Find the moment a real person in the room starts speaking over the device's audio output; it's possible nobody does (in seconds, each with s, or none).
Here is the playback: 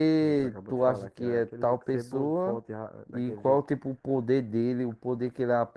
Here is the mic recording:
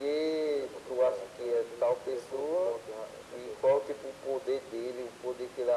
none